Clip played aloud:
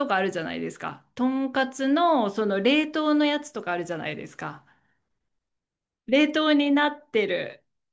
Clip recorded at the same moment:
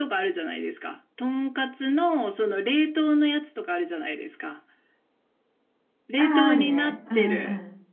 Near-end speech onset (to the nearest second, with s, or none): 6 s